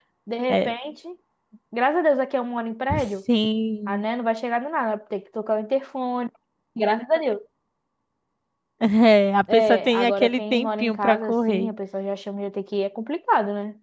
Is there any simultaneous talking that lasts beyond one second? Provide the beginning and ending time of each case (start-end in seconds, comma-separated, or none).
9.5-11.7